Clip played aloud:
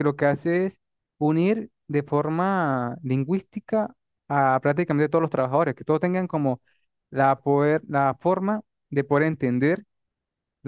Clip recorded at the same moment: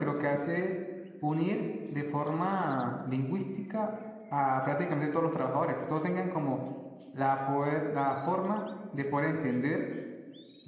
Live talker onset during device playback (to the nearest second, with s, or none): none